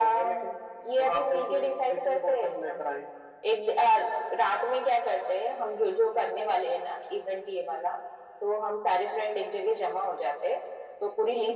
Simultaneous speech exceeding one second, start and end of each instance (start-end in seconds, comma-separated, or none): 1.0-2.9